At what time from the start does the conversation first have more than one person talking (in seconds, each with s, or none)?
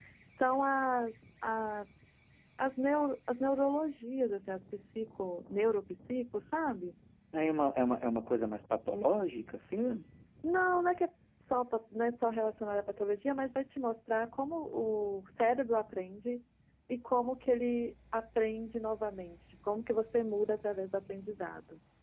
none